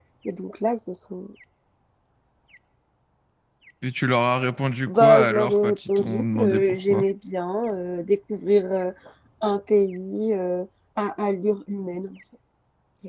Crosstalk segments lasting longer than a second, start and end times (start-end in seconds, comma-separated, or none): 4.9-7.0